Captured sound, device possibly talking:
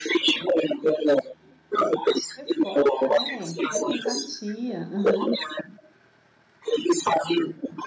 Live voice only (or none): Resposta, né, essa empatia. Aham.